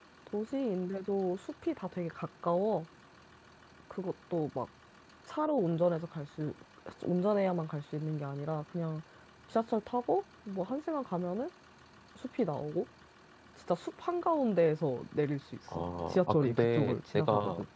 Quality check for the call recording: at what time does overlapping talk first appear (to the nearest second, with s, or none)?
16 s